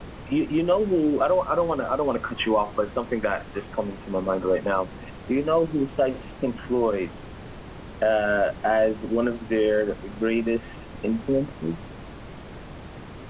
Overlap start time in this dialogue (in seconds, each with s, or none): none